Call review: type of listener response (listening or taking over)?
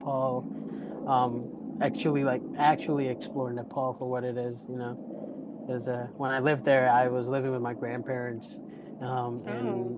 listening